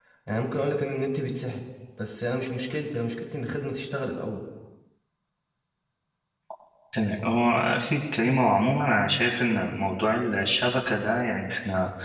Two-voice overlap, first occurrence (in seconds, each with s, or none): none